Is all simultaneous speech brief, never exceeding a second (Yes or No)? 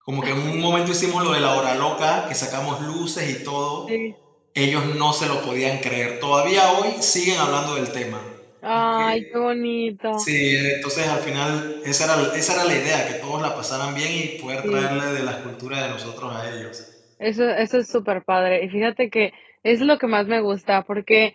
Yes